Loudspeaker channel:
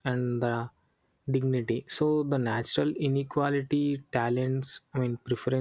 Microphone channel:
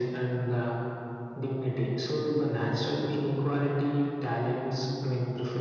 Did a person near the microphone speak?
No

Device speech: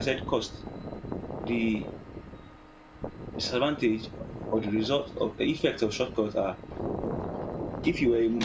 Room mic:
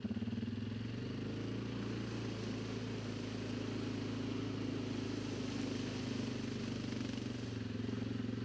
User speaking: No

